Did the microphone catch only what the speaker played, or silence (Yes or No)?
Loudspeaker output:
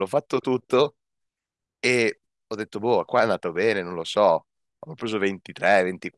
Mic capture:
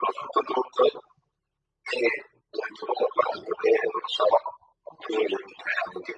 Yes